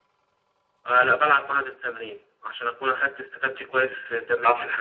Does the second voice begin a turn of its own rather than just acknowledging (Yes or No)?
Yes